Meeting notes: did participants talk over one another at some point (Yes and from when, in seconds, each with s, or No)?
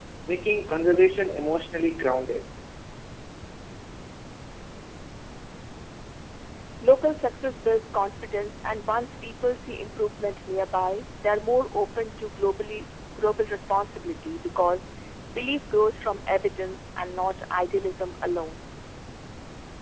No